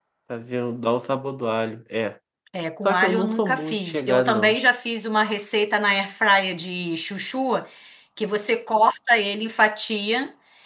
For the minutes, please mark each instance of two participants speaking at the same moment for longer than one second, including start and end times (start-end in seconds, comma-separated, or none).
2.9-4.6